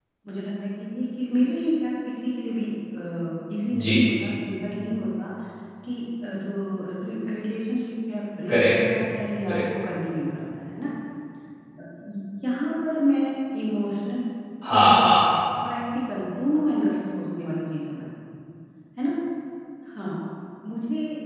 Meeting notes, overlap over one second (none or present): none